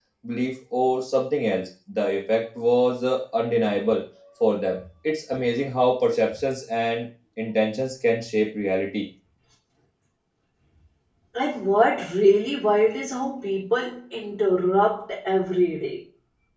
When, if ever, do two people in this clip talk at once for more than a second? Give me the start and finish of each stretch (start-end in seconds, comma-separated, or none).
none